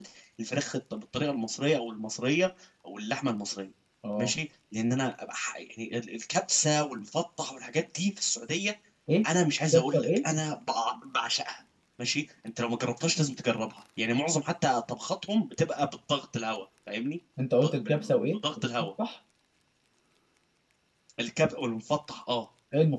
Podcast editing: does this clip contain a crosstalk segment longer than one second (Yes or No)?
Yes